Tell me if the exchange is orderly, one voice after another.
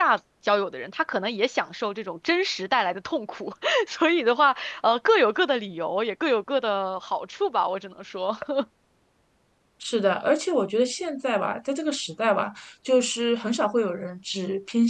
Yes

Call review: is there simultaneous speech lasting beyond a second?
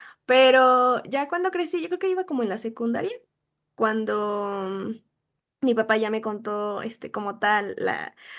No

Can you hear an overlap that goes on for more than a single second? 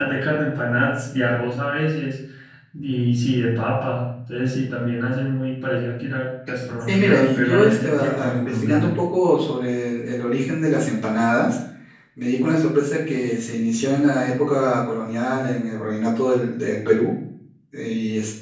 Yes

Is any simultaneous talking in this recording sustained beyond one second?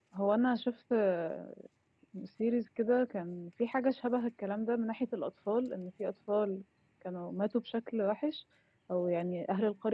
No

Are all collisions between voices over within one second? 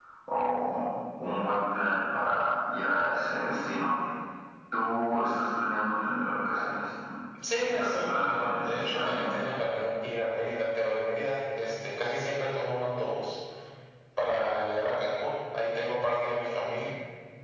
No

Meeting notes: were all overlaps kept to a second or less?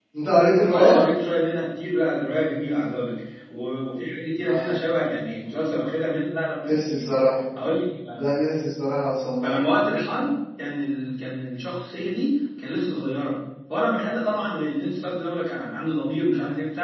Yes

